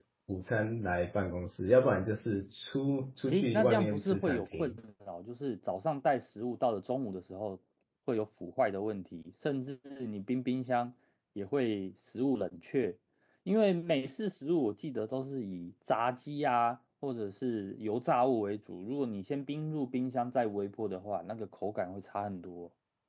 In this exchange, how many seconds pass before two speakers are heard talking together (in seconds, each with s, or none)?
3.3 s